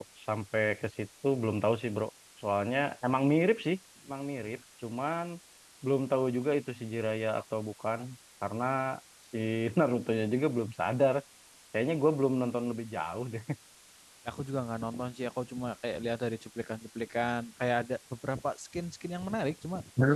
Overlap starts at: none

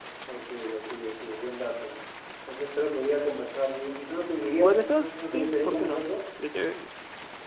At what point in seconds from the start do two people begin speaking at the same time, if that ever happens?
4.6 s

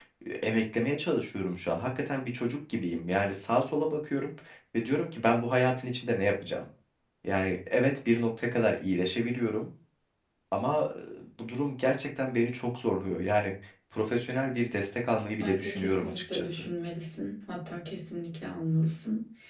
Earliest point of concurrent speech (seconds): 15.4 s

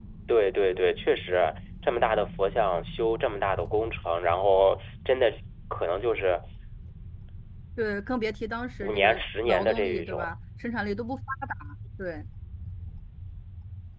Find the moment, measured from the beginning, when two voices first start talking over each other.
8.8 s

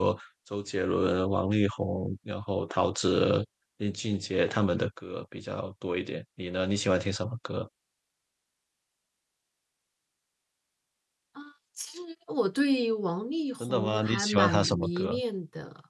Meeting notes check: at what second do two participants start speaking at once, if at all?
13.6 s

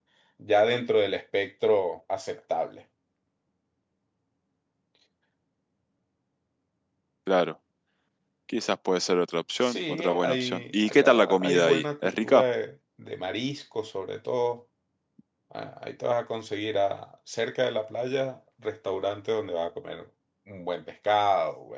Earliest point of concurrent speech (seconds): 9.6 s

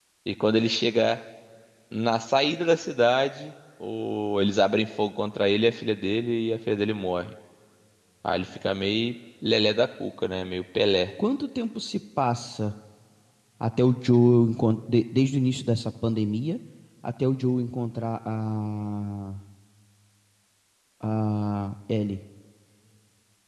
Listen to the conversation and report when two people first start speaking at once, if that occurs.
none

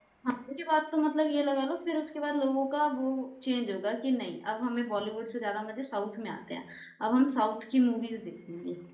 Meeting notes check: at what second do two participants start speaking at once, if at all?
none

